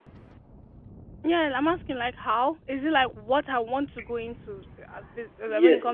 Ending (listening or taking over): taking over